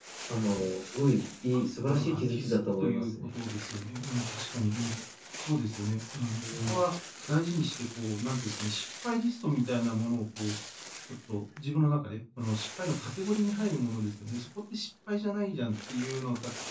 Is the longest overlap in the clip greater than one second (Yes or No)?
Yes